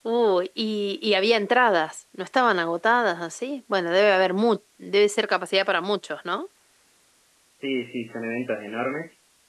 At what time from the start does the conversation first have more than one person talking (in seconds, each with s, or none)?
none